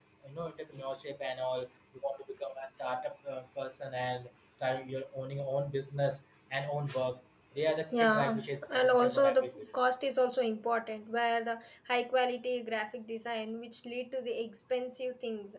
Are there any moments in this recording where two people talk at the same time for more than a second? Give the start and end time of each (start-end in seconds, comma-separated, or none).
7.9-9.7